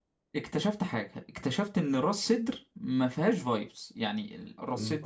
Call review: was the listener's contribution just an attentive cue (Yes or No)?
No